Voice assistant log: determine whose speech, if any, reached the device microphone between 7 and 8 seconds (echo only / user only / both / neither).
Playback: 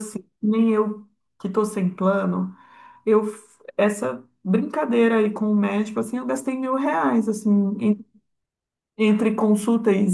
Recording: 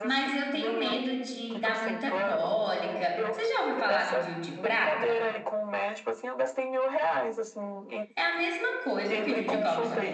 echo only